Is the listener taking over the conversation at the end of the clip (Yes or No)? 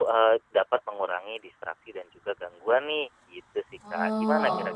Yes